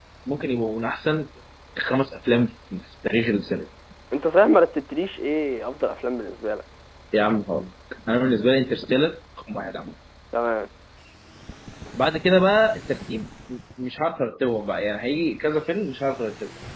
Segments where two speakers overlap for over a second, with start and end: none

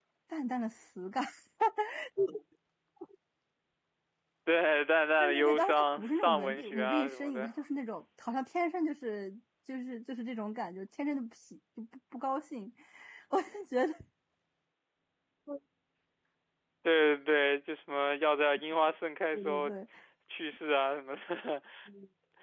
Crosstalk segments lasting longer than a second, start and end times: 5.2-7.5

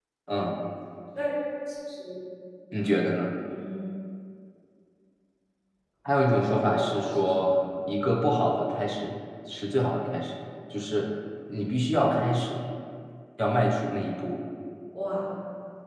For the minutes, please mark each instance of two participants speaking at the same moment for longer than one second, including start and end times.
6.3-7.5

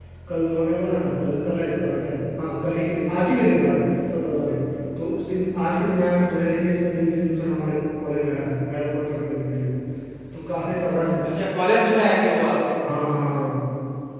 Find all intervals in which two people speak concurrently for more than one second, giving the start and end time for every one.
none

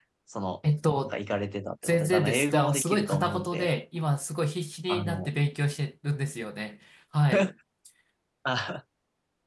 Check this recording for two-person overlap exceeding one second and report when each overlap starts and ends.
1.8-3.8

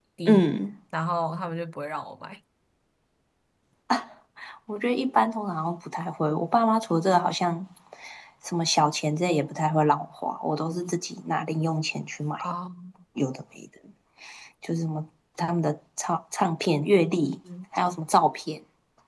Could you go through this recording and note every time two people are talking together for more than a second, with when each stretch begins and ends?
none

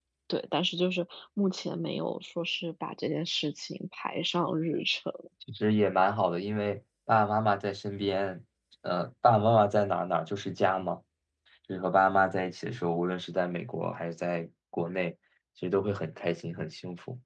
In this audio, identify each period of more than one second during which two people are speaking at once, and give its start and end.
none

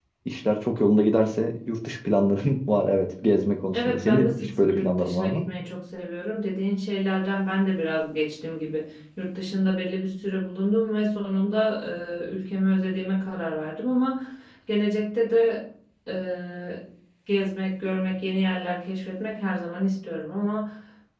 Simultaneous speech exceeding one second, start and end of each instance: 3.7-5.4

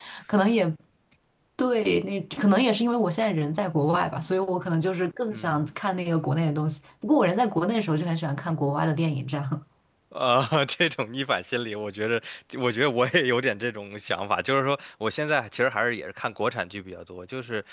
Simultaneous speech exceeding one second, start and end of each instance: none

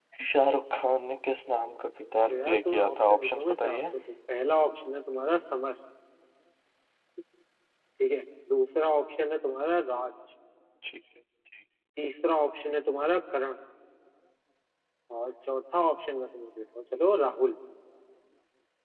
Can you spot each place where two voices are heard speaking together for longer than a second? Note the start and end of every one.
2.3-3.8

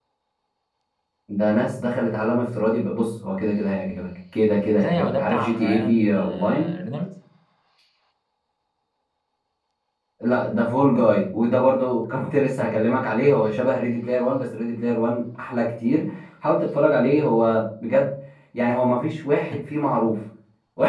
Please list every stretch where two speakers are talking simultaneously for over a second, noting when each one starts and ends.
4.8-6.7

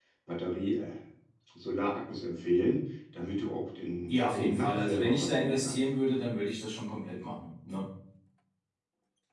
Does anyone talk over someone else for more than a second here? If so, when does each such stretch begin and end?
4.1-5.8

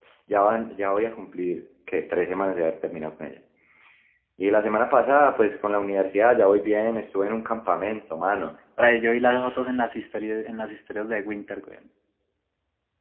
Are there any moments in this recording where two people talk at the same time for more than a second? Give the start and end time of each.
none

